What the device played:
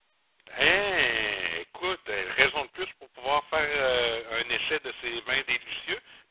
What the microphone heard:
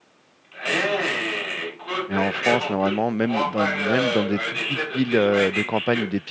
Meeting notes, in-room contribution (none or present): present